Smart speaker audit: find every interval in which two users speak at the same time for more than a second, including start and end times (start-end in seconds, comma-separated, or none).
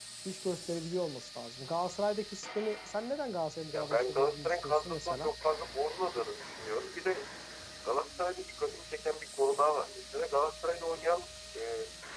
3.7-5.3